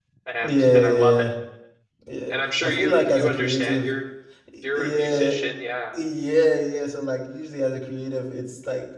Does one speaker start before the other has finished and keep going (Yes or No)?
Yes